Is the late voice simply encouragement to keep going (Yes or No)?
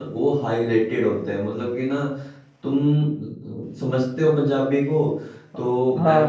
Yes